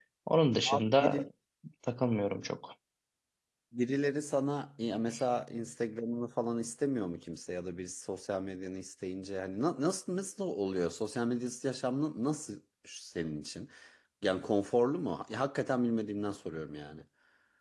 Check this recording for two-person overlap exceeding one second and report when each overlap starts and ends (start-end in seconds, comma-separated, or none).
none